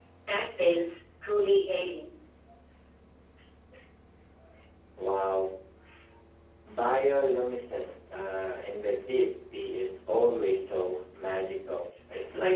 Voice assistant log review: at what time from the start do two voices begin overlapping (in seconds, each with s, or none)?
none